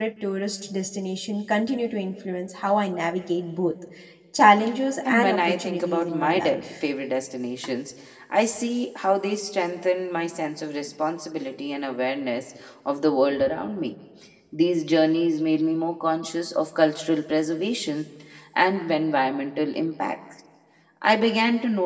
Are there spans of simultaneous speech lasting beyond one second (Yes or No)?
Yes